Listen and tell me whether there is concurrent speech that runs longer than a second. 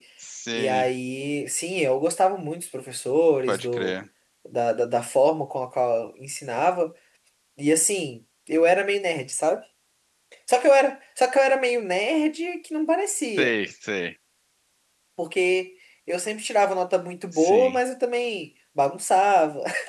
No

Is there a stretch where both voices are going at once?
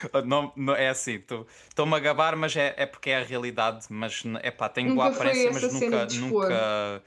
Yes, from 4.8 s

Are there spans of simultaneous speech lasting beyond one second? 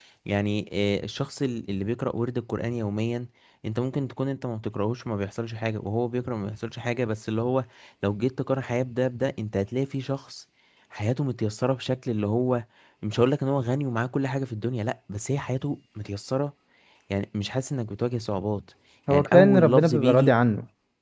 Yes, from 19.1 s

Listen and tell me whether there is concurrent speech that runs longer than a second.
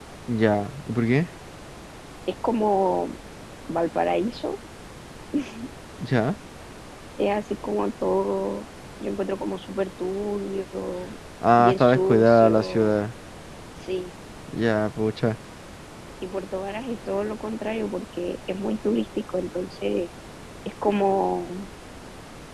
Yes, from 11.6 s

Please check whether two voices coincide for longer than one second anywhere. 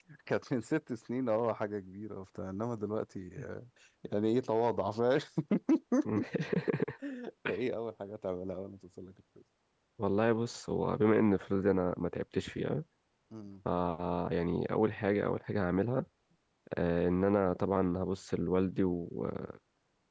No

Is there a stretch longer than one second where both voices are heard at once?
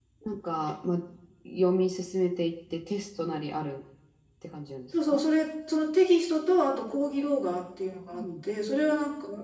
No

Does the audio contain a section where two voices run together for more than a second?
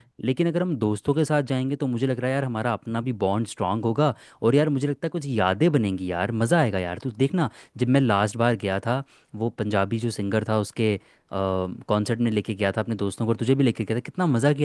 No

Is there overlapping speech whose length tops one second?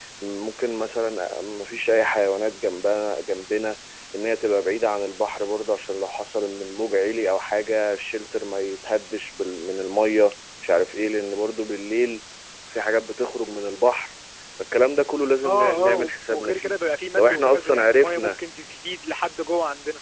Yes, from 15.4 s

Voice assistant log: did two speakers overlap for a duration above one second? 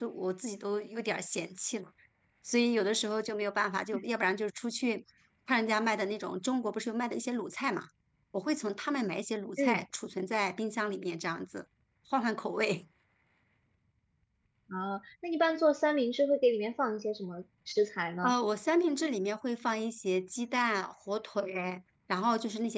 No

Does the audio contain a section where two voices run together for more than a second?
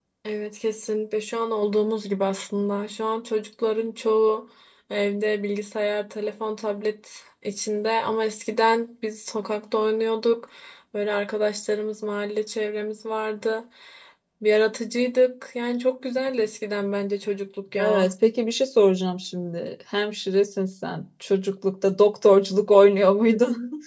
No

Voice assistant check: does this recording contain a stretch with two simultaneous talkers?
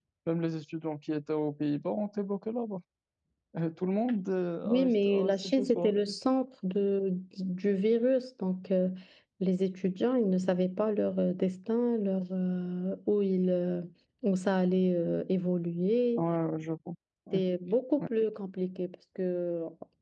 Yes, from 4.7 s

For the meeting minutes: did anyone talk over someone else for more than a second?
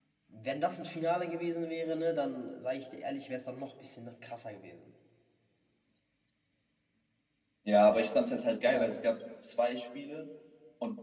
No

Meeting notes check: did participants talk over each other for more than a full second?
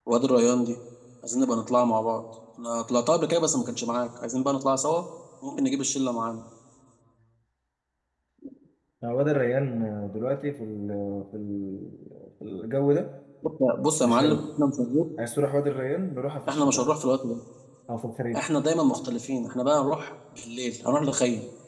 No

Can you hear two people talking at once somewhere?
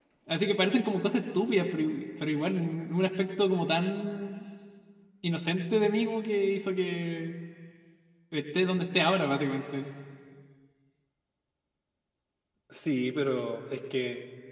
No

